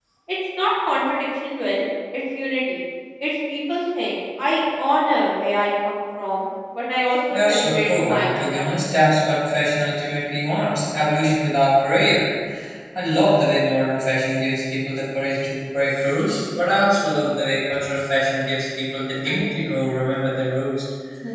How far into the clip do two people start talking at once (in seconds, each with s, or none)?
7.3 s